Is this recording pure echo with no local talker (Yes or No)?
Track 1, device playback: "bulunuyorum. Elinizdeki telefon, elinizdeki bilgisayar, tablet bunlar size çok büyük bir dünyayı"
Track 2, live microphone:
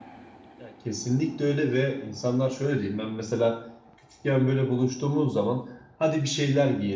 No